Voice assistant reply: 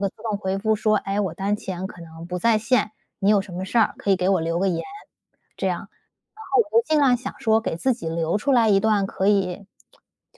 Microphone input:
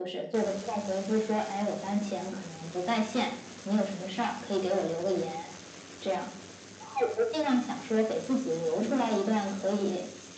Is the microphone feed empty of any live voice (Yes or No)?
No